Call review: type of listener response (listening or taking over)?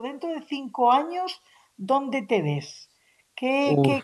listening